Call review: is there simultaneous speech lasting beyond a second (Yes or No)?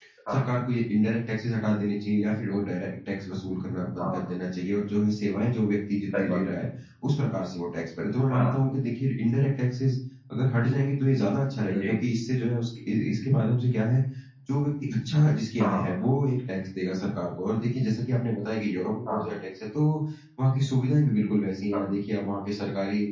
No